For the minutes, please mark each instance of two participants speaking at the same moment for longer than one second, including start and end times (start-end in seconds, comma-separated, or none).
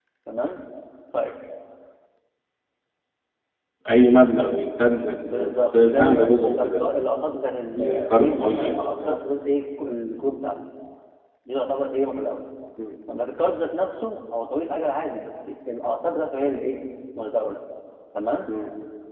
5.4-6.9, 7.7-9.1